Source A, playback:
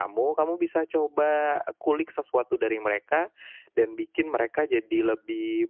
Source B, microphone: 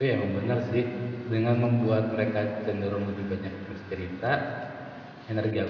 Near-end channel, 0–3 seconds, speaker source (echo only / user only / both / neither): user only